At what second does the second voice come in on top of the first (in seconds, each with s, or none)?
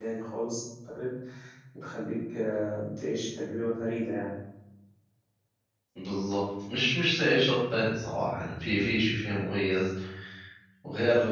none